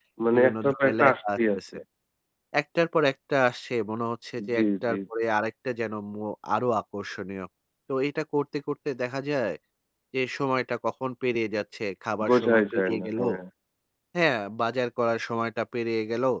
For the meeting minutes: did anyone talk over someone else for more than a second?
Yes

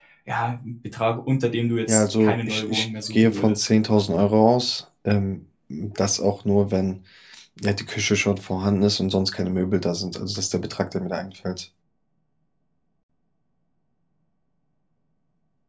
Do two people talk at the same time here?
Yes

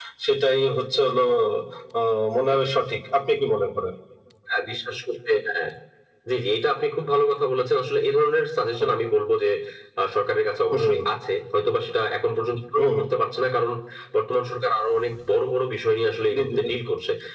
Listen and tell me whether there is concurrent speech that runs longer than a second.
No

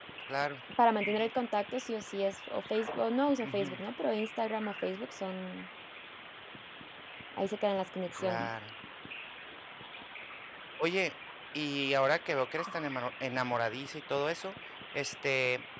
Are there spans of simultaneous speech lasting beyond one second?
No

